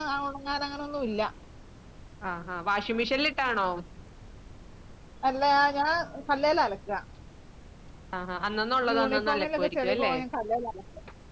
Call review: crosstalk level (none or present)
present